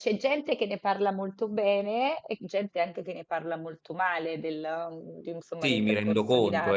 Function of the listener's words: taking over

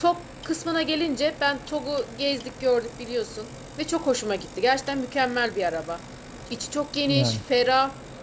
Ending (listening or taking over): listening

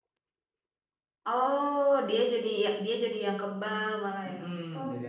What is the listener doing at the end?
taking over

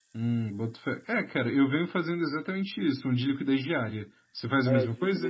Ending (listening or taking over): taking over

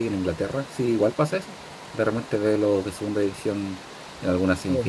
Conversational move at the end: listening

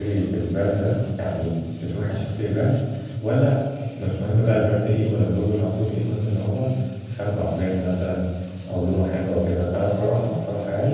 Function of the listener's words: listening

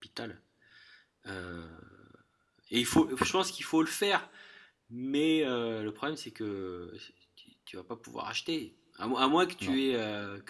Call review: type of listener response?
listening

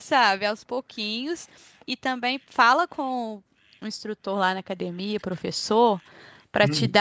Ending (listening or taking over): listening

